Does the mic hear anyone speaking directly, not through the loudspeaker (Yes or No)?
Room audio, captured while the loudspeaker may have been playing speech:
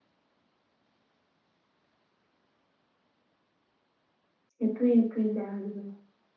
Yes